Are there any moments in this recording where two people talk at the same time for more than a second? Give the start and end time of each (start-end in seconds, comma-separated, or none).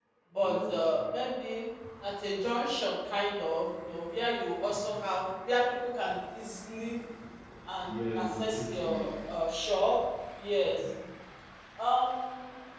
7.8-9.1